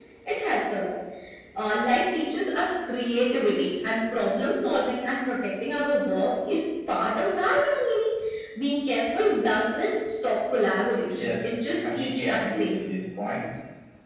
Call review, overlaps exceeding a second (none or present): present